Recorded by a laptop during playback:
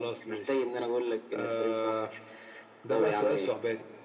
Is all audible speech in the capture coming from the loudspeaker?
Yes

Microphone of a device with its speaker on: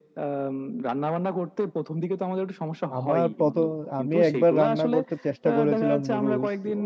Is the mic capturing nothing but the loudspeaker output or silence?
No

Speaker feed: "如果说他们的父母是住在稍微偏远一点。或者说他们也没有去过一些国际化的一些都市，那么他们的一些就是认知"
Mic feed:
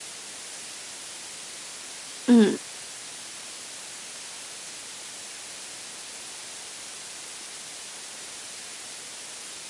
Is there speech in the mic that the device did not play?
Yes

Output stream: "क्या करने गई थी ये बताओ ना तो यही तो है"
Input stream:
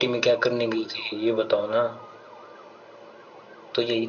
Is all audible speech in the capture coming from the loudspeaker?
Yes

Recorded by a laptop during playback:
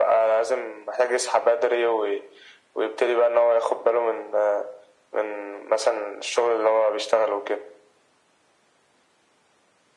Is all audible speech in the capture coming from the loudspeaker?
Yes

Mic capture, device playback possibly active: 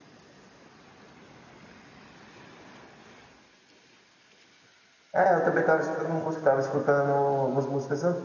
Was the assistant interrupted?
Yes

